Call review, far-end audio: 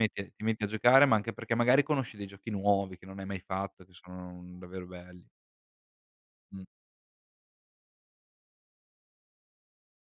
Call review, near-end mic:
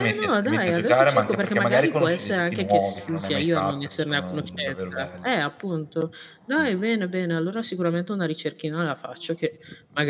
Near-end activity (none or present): present